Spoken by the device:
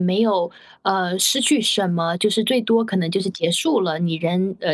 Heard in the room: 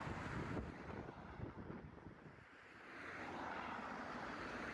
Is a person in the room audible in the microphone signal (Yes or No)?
No